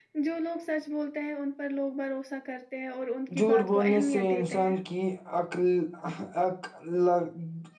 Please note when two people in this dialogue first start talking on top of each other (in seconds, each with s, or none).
3.3 s